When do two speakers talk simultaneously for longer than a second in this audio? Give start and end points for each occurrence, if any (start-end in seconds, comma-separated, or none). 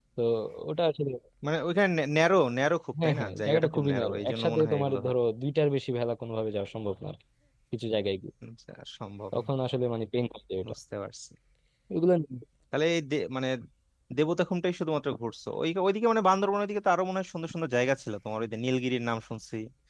3.0-5.1